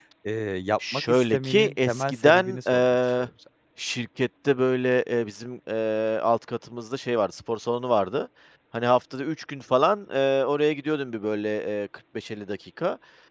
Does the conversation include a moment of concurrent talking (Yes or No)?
Yes